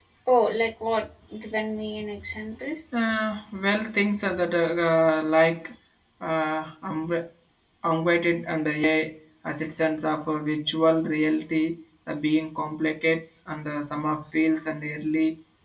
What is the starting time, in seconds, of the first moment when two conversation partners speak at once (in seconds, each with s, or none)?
none